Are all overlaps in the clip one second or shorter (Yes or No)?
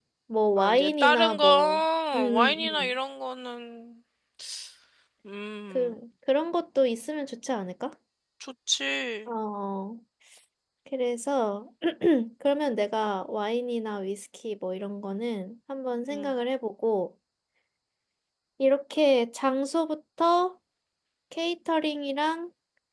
No